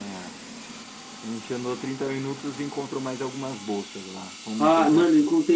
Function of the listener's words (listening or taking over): taking over